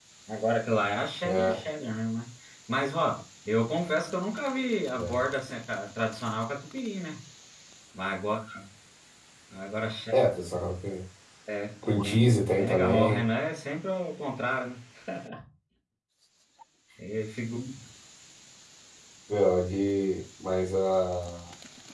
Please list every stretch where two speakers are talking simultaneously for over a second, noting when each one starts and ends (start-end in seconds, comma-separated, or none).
11.8-13.3